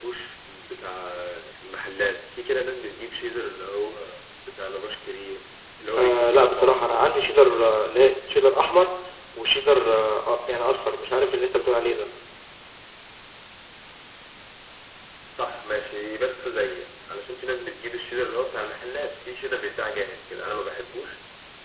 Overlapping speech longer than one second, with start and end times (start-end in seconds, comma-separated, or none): 6.0-7.3